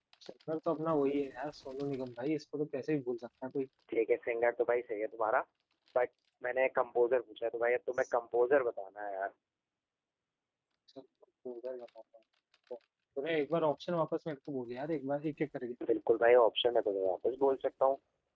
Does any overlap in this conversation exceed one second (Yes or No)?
No